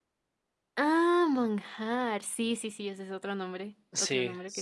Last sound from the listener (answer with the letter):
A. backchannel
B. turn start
B